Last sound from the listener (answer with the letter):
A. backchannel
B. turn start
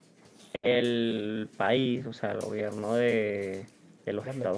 A